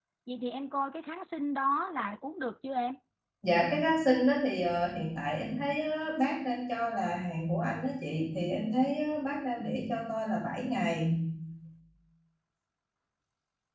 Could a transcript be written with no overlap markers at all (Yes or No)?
Yes